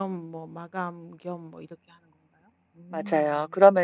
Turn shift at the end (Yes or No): Yes